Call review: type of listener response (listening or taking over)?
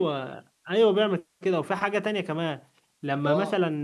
listening